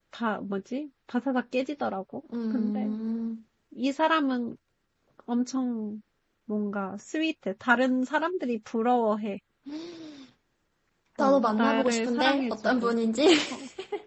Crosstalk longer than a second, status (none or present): present